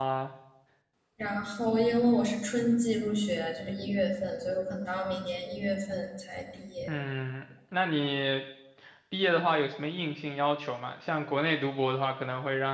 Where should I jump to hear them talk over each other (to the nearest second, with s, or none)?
none